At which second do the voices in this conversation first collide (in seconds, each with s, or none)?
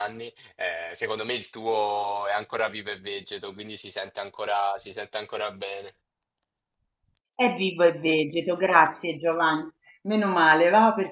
none